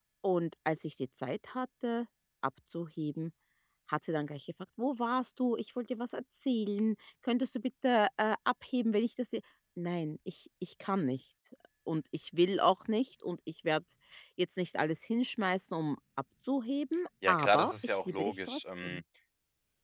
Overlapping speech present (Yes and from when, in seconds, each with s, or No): Yes, from 17.2 s